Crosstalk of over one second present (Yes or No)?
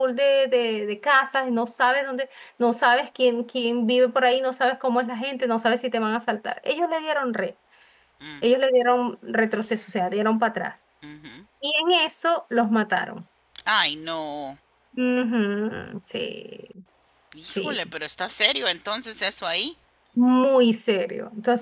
No